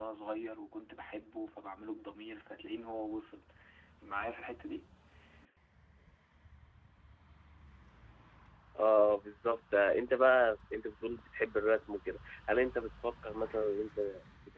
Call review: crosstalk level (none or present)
none